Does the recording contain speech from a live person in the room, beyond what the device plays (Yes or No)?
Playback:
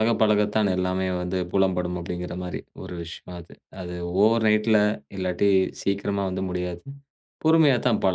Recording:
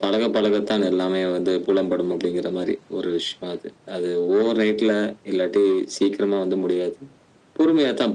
No